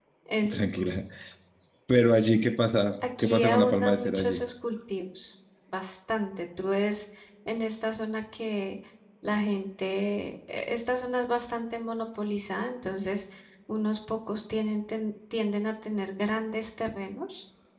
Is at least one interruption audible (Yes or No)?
Yes